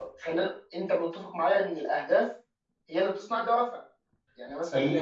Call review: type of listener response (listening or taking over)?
taking over